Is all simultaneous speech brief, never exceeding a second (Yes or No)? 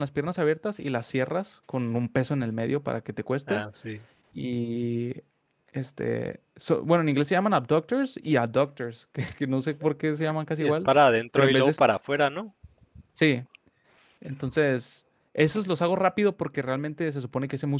Yes